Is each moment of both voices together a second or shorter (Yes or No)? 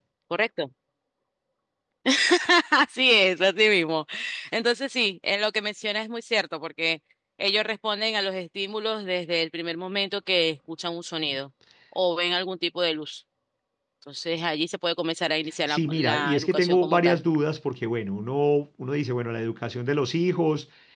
No